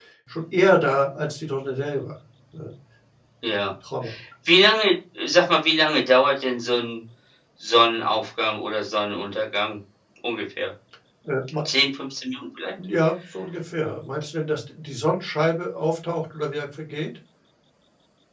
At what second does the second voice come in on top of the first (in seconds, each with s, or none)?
none